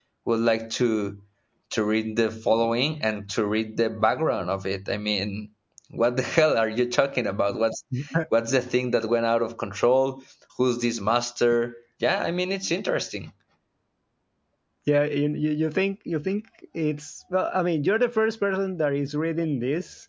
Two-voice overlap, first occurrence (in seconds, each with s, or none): none